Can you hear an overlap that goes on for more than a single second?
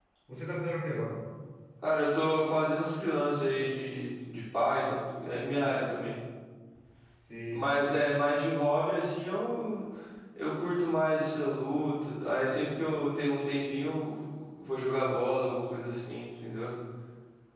No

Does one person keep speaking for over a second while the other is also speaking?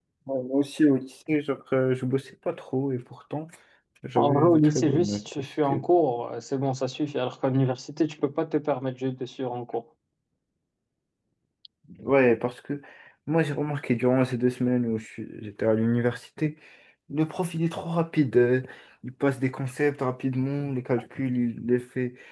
Yes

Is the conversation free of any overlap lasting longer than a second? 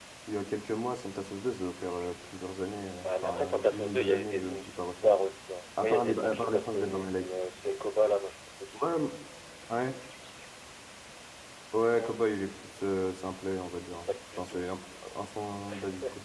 No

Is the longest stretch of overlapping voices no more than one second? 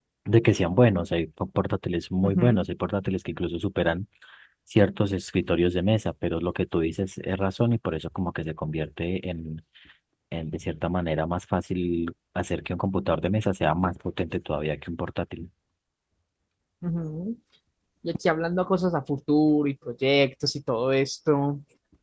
Yes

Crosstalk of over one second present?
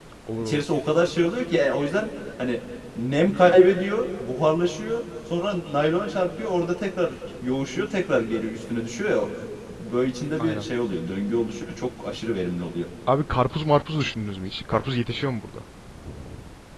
No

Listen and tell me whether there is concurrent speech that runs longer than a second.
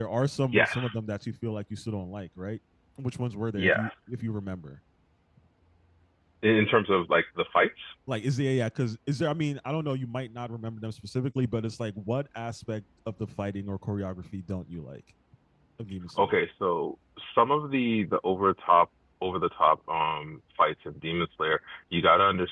No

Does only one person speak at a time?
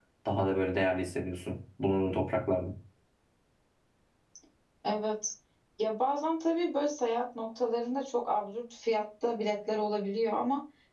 Yes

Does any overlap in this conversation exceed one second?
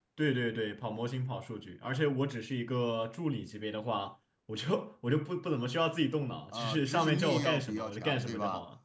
Yes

